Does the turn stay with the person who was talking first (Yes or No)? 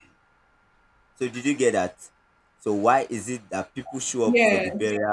Yes